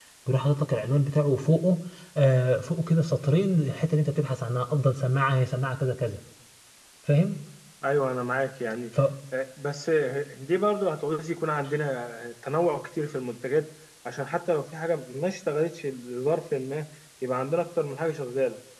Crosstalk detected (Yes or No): No